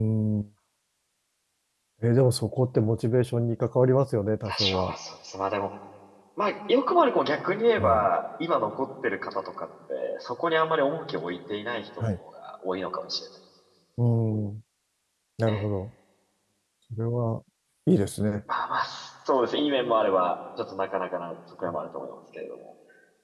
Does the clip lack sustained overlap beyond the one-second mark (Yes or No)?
Yes